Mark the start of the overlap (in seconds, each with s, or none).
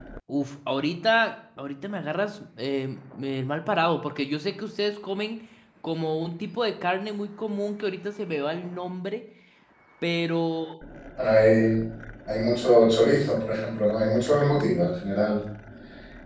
none